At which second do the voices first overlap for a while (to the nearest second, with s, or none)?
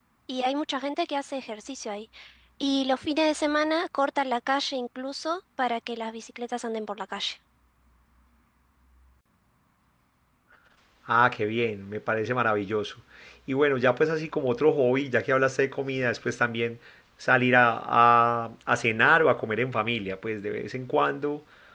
none